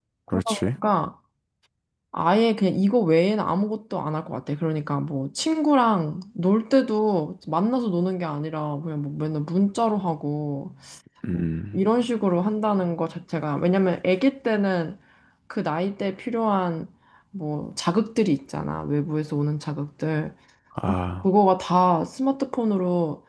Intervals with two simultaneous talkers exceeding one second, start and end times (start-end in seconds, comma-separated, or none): none